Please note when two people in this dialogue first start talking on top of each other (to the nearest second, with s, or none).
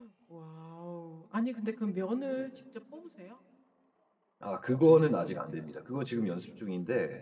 none